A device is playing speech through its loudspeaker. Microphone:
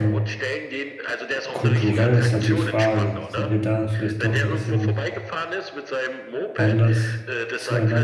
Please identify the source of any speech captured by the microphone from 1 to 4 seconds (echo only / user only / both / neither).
both